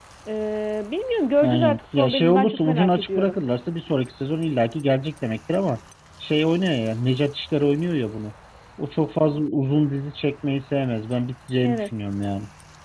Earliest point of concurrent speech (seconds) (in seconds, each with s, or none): 1.4 s